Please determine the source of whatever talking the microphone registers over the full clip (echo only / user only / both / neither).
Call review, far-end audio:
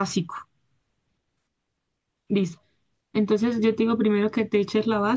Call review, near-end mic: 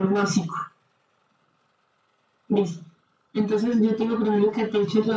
echo only